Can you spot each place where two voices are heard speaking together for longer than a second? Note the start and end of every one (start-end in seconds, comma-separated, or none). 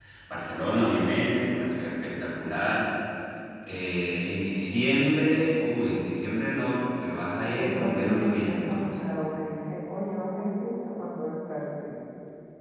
7.6-9.1